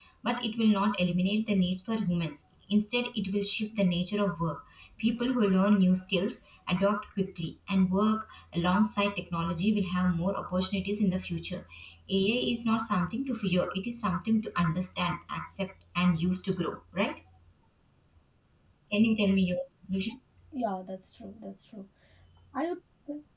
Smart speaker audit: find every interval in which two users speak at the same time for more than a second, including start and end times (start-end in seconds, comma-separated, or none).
none